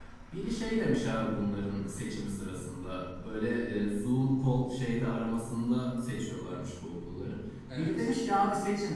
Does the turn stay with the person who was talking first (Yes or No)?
Yes